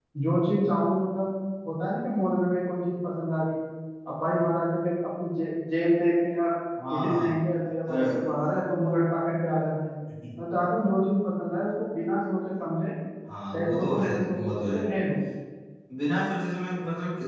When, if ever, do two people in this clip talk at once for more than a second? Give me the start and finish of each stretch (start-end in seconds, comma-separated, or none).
13.5-14.9